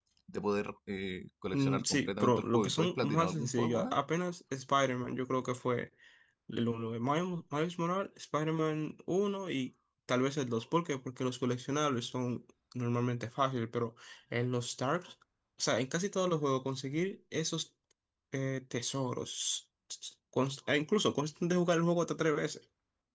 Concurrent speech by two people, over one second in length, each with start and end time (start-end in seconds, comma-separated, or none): 1.5-3.9